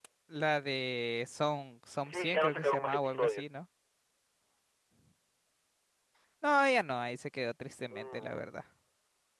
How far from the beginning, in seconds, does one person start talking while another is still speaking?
2 s

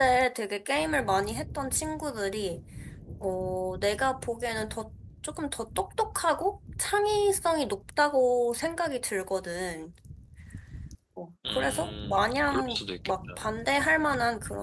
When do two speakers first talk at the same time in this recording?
11 s

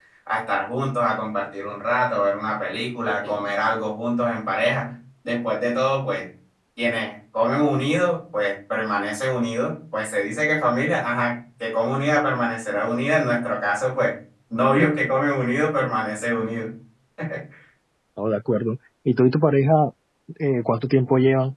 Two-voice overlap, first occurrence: none

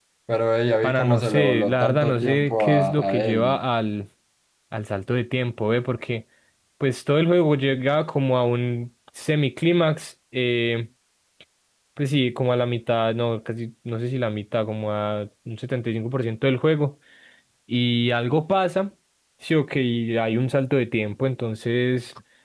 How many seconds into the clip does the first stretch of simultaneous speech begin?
1 s

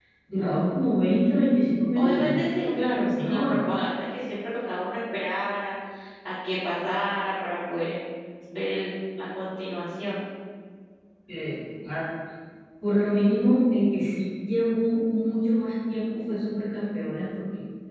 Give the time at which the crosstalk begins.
2 s

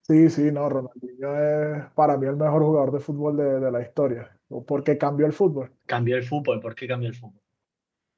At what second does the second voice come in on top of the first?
none

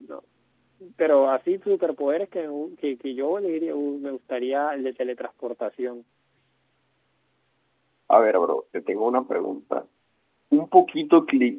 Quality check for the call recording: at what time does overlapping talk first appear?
none

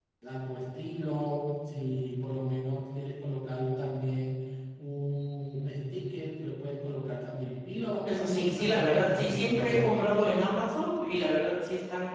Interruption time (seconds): 8 s

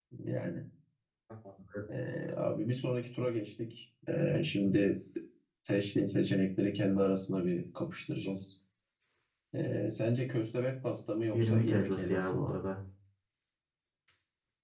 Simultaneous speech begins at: 11 s

